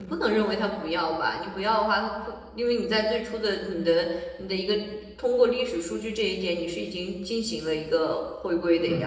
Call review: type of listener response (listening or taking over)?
taking over